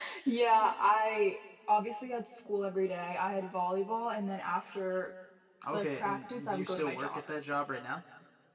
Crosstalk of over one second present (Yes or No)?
Yes